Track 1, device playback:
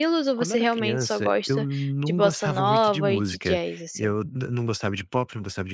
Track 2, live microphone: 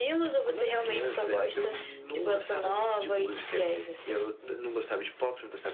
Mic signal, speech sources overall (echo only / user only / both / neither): echo only